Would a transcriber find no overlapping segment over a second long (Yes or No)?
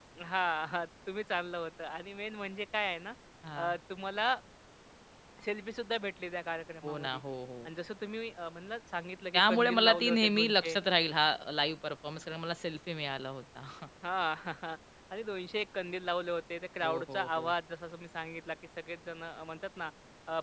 No